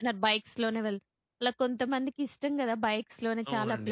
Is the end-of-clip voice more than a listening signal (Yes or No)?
Yes